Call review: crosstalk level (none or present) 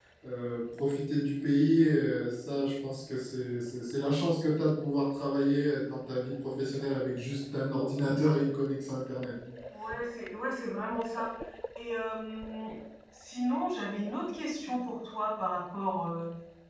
none